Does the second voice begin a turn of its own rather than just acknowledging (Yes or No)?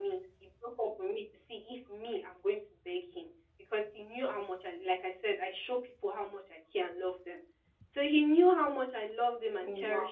No